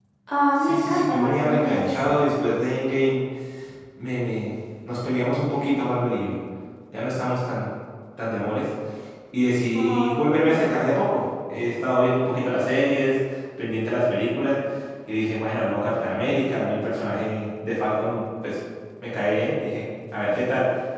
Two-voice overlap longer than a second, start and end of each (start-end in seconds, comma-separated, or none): 0.6-2.1